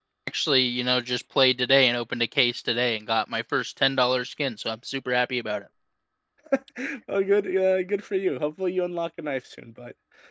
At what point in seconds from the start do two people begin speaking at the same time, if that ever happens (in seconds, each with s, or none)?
none